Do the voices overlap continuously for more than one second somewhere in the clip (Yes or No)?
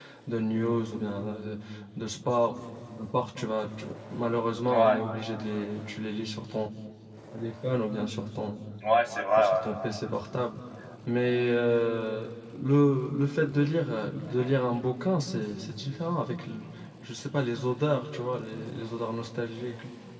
No